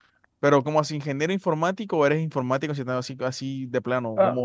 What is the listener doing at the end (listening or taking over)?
taking over